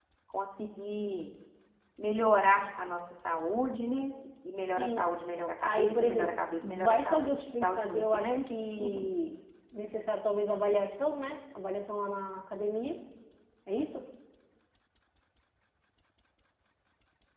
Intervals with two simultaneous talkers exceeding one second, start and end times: 5.6-8.5

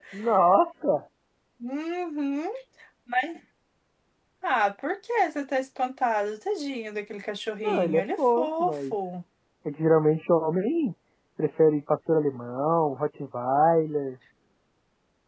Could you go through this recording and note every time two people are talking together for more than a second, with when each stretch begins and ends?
7.6-8.9

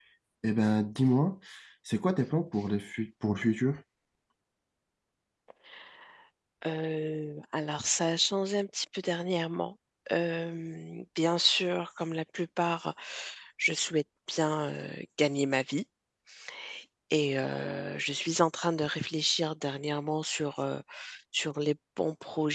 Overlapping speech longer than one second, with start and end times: none

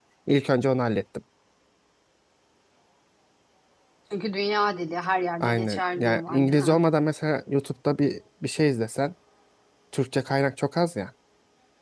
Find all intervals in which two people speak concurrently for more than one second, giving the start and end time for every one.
5.4-6.8

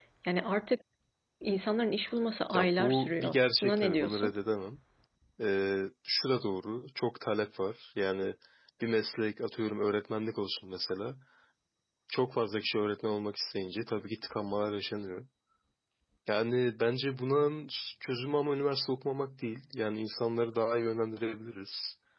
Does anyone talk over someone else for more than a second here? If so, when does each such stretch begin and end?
2.5-4.4

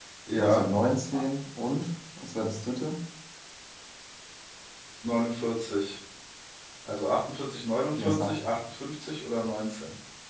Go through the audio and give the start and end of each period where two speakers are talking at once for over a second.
none

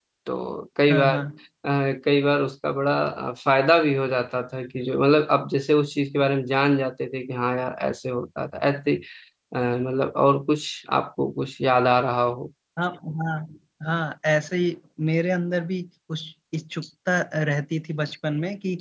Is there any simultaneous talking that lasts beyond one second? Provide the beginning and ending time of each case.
none

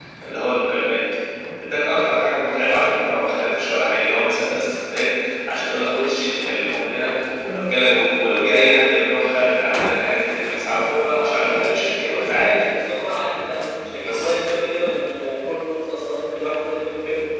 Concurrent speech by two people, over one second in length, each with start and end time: 11.0-12.6

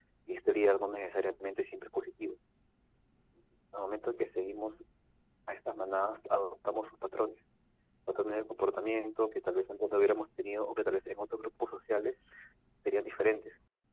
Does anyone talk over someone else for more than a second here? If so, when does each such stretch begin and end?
none

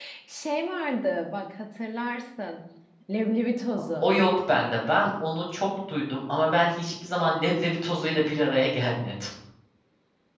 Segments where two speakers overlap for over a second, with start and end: none

